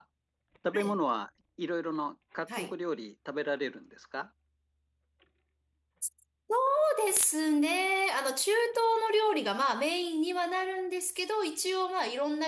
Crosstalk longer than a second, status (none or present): none